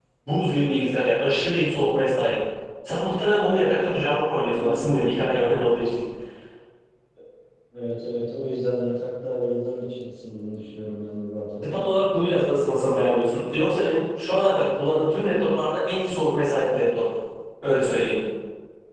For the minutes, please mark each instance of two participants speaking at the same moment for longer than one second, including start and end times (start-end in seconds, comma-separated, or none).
none